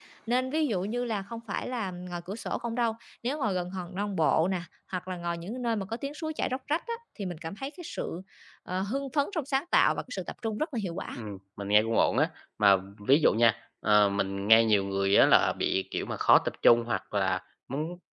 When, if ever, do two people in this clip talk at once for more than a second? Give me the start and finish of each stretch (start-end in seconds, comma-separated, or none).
none